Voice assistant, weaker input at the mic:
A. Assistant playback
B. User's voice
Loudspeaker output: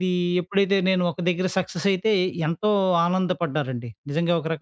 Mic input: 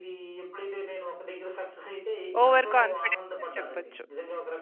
A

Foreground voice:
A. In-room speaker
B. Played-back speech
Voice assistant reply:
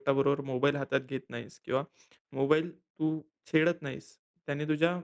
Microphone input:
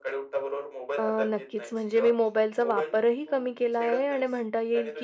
A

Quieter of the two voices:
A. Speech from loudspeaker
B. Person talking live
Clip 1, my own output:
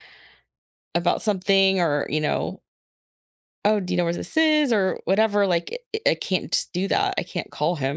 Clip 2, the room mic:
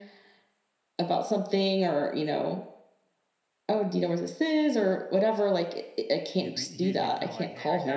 B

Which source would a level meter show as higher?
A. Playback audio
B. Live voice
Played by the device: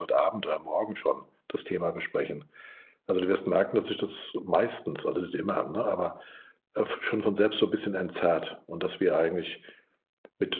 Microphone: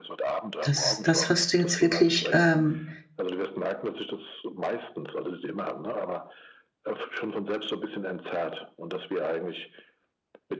B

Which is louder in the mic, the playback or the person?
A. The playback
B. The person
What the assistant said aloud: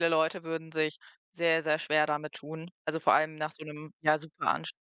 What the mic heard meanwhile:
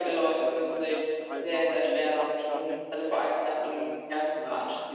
A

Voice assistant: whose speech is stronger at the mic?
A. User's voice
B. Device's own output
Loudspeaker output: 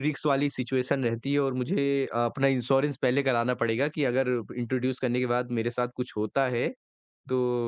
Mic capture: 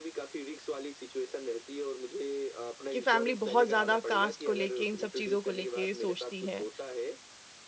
A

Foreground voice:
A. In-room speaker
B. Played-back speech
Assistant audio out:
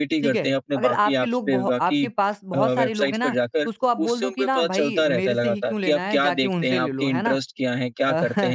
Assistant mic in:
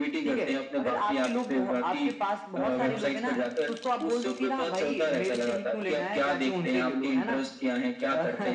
B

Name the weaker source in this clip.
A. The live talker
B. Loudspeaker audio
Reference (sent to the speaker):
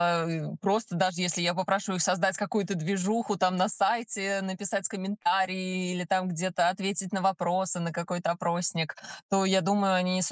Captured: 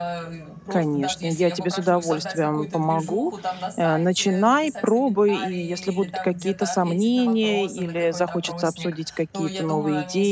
B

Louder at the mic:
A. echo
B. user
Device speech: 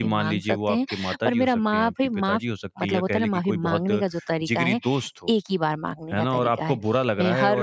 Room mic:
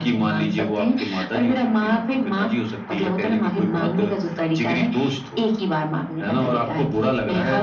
A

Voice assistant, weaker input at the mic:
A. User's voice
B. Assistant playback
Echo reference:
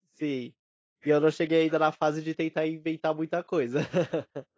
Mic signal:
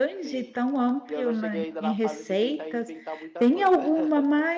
B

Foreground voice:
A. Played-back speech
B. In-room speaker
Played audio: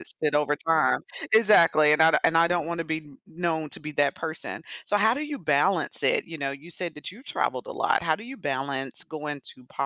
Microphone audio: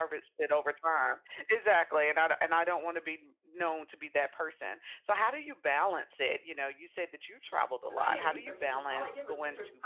A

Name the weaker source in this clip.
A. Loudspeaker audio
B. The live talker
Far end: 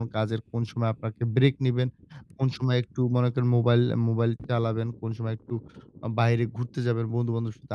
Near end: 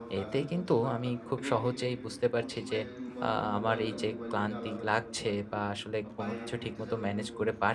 A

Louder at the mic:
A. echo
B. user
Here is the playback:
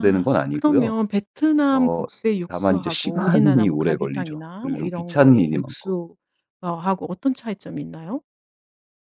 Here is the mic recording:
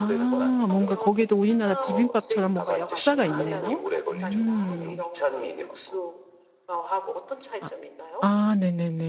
B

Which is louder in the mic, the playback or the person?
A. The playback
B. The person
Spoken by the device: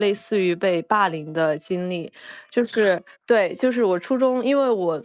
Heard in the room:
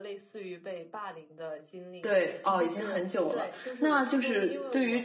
B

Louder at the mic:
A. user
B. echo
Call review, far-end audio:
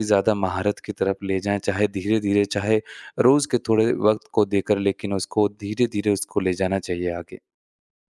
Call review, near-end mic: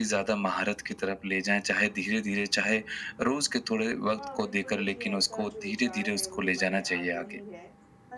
B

